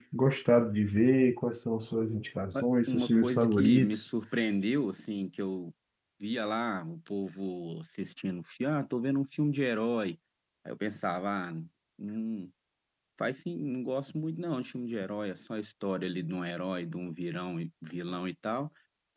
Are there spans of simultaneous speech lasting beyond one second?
Yes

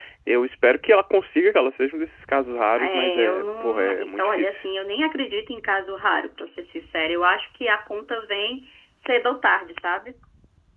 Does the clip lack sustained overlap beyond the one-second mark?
No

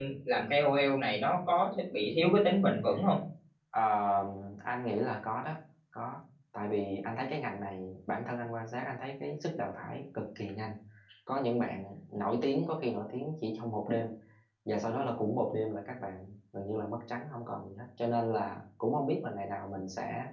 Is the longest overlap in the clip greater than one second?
No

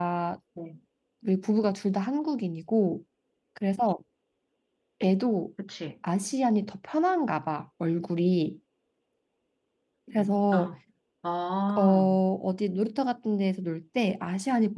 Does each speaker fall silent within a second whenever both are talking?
Yes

